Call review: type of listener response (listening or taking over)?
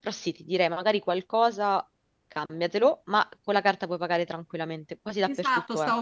taking over